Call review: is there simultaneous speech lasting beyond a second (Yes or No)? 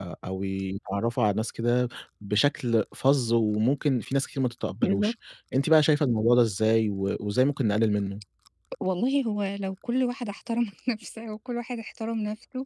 No